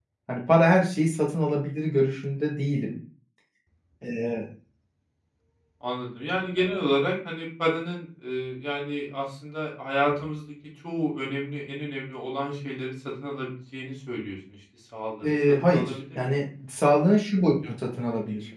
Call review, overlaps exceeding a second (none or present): present